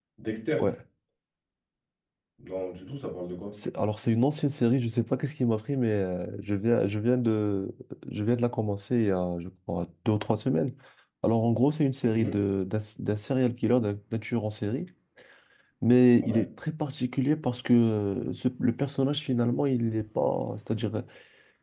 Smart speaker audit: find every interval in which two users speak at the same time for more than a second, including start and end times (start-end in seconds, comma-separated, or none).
none